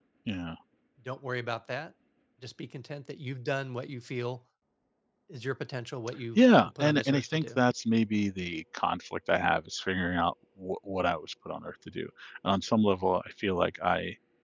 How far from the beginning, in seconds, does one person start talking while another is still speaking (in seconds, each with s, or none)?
6.4 s